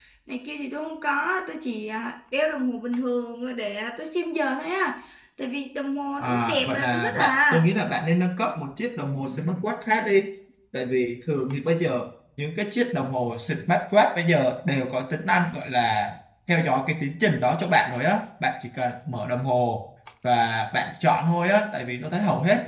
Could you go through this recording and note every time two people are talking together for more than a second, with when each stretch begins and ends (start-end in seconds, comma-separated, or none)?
6.2-7.7